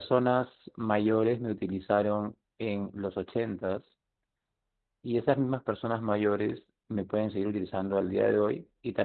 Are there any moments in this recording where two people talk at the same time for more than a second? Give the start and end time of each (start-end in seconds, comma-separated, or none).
none